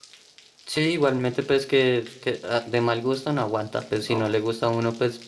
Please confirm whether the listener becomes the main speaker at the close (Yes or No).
No